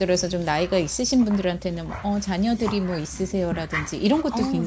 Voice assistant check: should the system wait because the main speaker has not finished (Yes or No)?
Yes